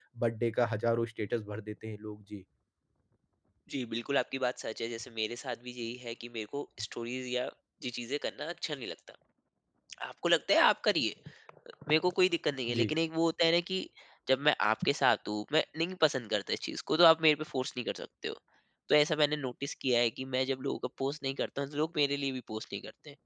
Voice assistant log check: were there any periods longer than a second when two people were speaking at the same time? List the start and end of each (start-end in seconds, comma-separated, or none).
none